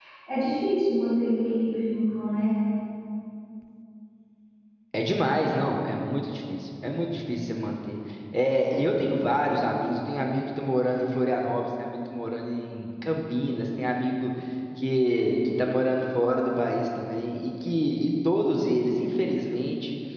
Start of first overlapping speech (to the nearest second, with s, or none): none